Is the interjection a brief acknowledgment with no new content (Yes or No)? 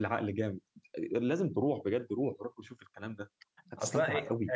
No